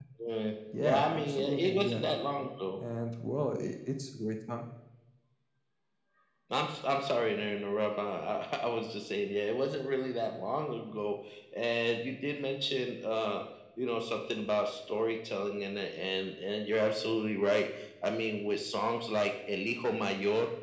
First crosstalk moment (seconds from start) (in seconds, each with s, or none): 0.8 s